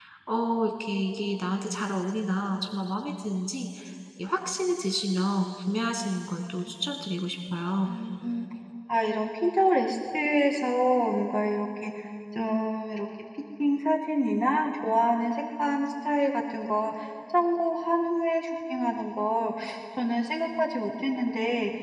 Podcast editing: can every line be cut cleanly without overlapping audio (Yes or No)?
Yes